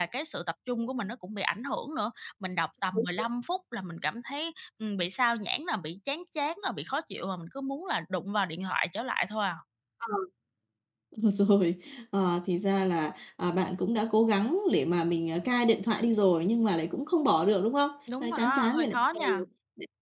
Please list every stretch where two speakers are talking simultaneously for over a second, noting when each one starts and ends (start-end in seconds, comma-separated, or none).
18.2-19.4